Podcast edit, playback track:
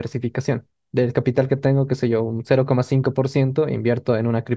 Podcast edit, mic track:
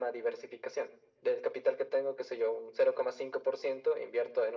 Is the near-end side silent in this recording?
Yes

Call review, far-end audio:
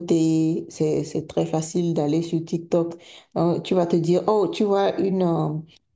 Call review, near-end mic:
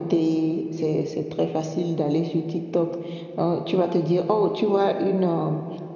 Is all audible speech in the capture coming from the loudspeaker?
Yes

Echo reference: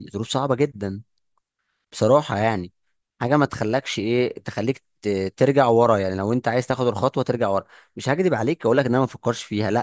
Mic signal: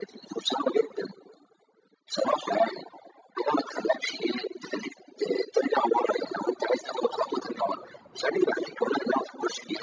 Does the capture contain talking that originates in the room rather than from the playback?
No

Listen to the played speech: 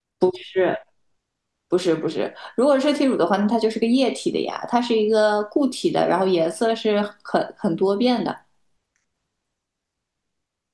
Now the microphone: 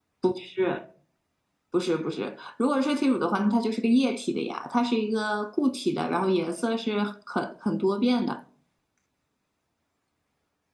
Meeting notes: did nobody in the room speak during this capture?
Yes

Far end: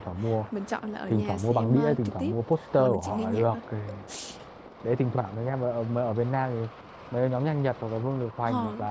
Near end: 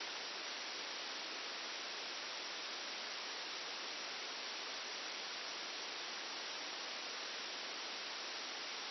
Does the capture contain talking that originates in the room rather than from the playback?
No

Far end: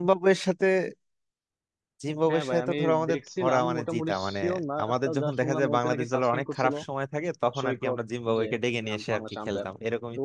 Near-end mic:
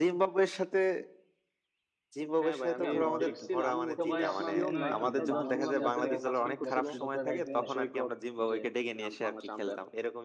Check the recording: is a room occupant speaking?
Yes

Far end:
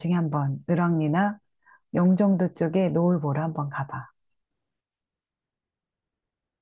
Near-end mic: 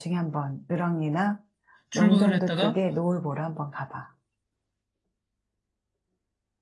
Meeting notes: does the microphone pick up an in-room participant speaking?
Yes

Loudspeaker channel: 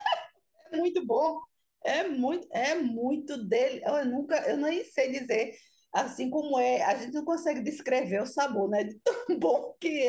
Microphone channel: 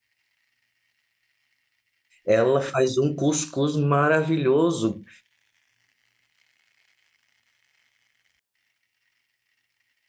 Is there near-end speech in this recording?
Yes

